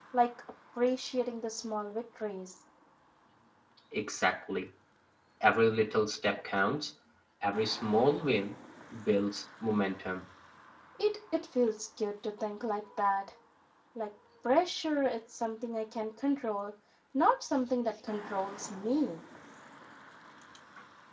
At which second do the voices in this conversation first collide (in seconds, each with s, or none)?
none